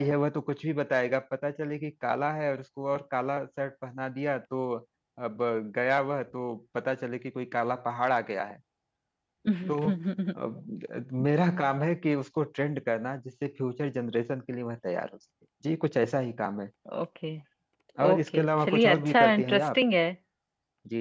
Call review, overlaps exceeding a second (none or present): present